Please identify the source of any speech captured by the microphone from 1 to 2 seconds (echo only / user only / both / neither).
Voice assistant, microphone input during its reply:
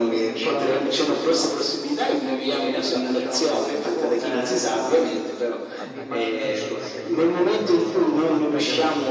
echo only